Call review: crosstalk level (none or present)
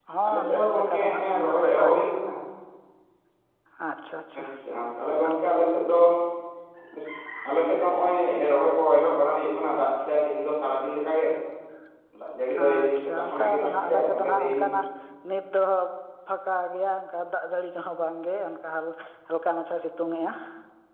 present